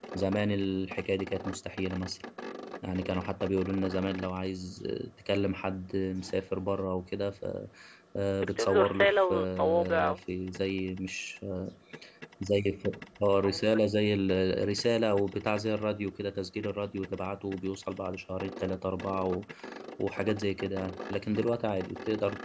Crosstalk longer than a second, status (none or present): present